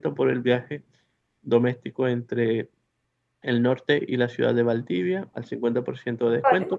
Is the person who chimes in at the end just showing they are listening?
Yes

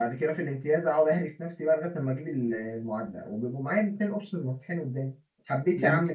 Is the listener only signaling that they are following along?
Yes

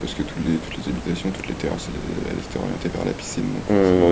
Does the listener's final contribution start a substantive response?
Yes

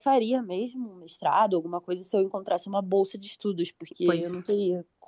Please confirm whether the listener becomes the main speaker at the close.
No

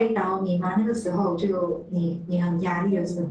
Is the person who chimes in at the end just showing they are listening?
No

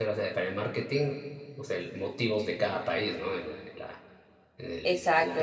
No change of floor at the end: No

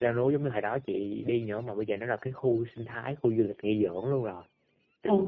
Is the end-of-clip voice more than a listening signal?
Yes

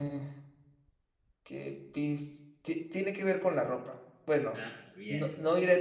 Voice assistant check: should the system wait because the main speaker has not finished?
Yes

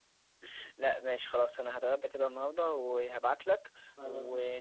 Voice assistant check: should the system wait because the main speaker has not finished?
Yes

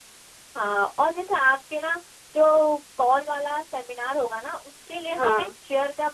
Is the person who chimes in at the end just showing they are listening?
Yes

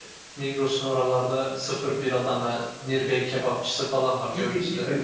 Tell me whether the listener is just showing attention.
No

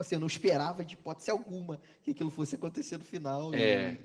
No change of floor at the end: Yes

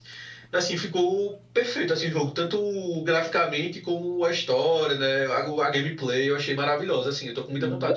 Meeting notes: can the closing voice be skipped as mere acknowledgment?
No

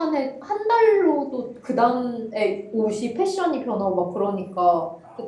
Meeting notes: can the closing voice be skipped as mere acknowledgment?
Yes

